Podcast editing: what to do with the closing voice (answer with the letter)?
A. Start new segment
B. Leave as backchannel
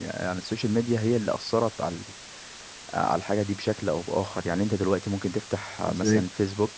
B